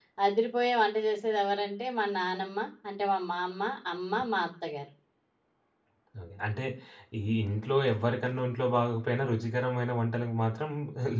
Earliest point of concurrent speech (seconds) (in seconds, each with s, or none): none